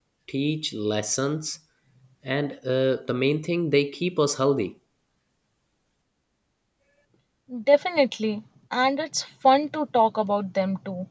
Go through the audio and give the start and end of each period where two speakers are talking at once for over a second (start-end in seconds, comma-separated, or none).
none